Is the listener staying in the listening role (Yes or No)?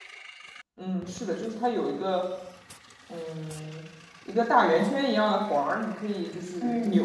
No